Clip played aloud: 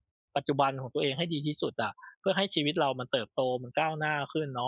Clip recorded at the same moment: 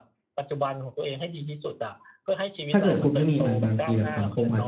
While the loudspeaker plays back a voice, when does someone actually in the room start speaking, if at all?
3 s

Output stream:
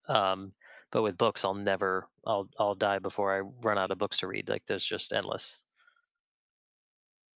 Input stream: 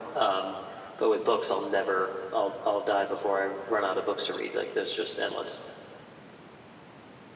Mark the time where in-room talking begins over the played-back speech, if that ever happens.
none

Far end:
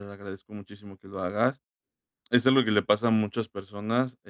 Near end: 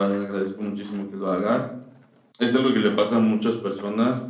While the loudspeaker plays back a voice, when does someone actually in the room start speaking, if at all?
none

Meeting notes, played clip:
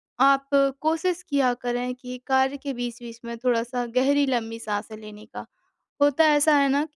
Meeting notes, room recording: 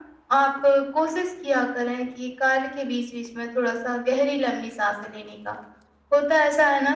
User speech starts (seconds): none

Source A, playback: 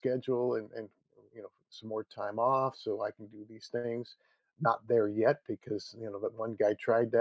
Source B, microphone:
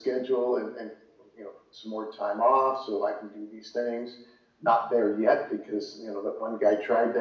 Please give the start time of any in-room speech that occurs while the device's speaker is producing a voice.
none

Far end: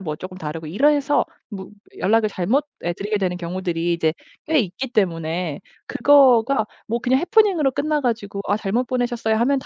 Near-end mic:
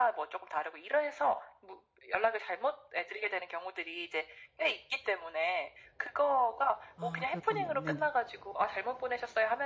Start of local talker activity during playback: 7 s

